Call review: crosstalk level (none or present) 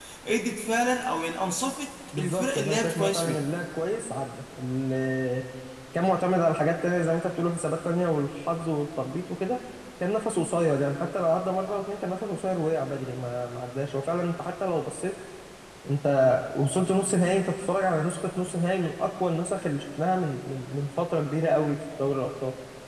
present